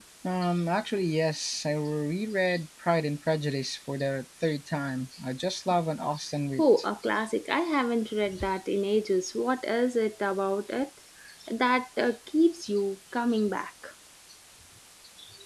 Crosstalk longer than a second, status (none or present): none